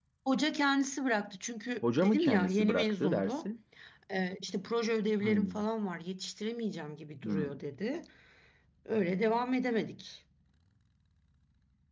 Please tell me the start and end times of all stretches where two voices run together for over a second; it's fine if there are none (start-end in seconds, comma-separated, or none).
1.8-3.5